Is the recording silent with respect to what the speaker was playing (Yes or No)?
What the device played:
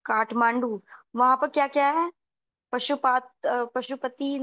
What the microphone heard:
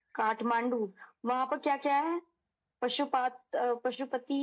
No